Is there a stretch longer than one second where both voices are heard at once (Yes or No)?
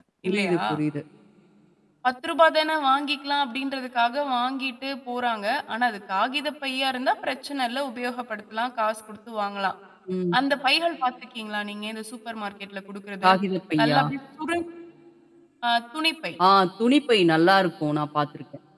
No